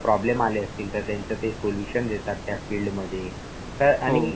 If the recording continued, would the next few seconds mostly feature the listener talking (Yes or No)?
No